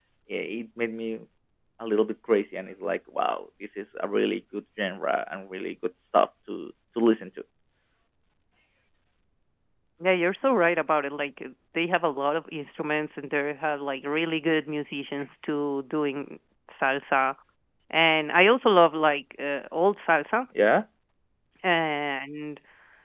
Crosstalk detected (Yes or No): No